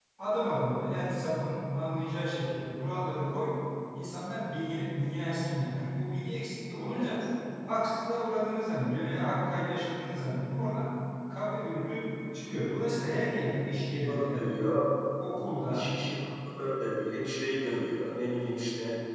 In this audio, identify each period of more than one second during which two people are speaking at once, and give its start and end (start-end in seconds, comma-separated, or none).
none